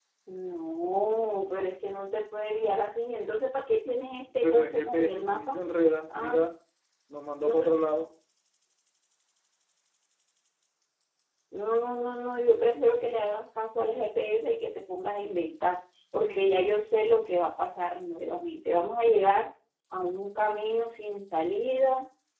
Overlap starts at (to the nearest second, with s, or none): 4 s